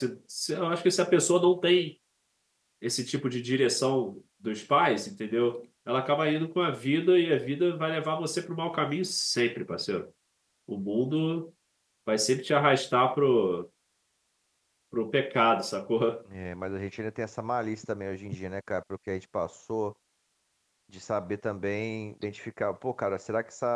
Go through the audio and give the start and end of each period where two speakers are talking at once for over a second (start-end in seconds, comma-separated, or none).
none